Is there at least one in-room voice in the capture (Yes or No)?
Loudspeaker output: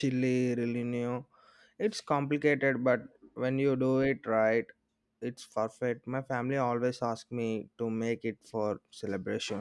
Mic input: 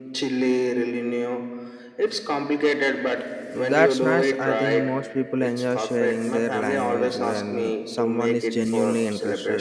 Yes